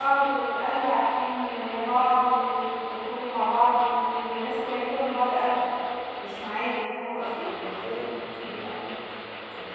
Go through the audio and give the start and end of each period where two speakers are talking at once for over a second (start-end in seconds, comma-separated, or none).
none